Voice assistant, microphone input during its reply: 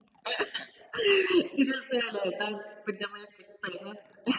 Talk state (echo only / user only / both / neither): echo only